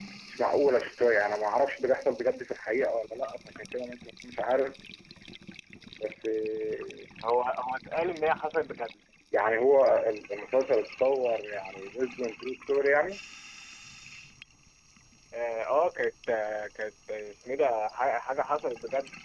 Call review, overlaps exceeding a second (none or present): none